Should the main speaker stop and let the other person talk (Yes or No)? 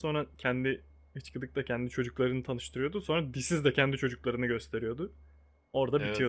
Yes